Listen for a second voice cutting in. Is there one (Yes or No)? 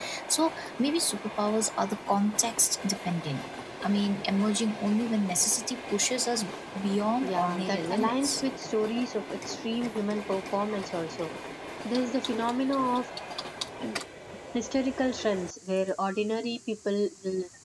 Yes